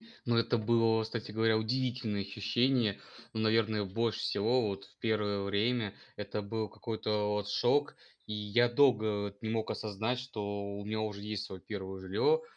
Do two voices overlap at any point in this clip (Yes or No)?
No